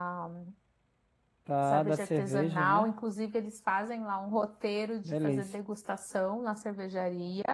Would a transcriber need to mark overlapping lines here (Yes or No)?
Yes